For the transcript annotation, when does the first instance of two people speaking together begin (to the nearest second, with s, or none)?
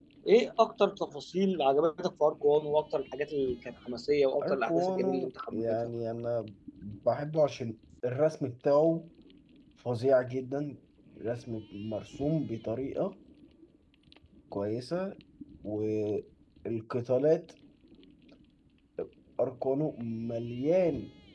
4 s